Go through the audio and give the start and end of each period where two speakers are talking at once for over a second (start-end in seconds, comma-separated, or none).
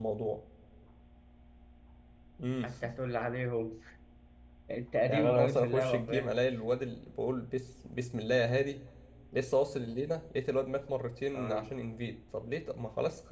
5.1-6.4